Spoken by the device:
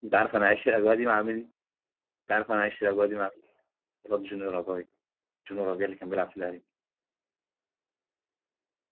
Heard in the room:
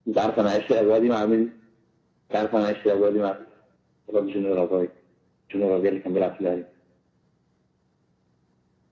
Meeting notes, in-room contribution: none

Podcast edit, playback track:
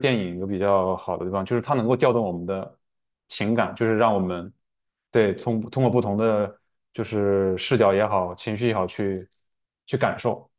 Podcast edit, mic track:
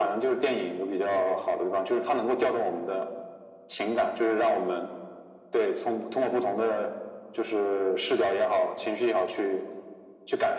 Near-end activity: none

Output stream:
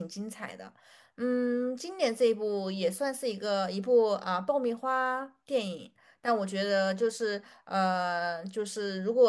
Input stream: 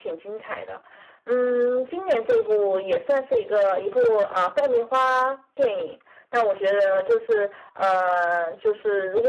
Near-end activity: none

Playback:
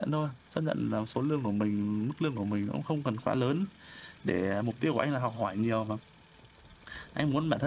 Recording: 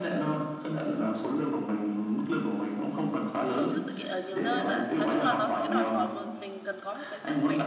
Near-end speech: present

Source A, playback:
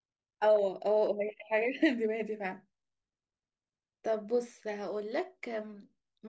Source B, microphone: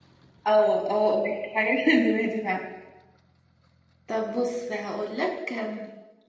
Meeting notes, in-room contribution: none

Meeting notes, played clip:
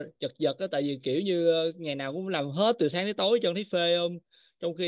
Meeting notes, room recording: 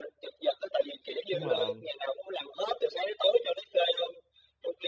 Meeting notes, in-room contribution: present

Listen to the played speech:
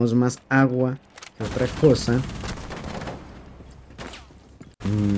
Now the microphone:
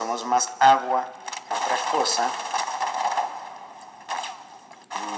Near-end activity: none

